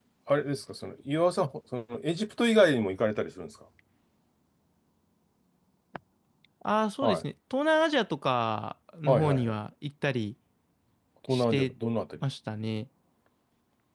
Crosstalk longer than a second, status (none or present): none